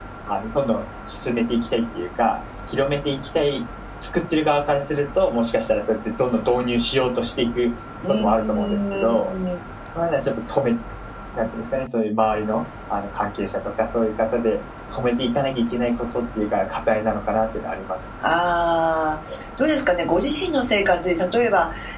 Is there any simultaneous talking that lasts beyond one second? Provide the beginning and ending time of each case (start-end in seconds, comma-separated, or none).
8.1-9.3